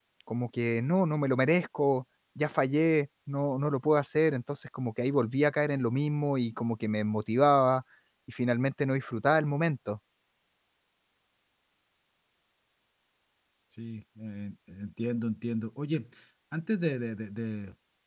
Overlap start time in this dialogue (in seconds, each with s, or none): none